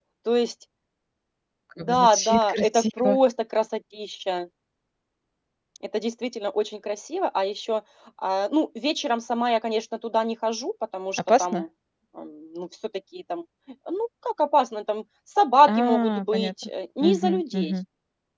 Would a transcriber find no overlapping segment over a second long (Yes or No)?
No